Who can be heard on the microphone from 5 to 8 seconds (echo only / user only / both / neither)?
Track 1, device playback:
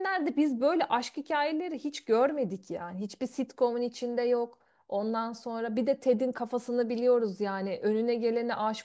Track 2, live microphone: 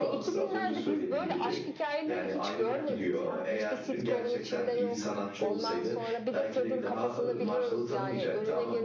both